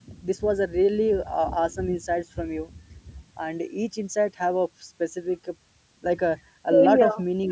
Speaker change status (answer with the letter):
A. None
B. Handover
A